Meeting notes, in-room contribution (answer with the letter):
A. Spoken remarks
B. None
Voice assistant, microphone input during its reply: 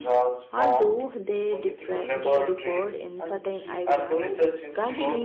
A